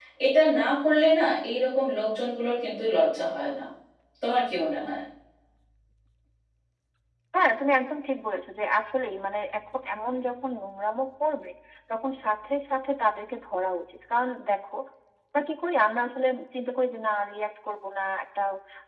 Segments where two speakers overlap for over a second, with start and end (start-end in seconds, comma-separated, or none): none